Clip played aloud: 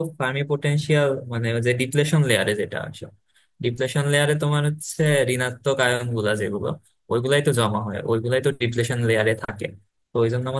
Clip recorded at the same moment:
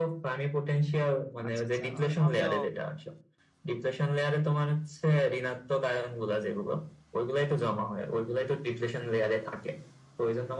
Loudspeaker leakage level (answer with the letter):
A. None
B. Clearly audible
B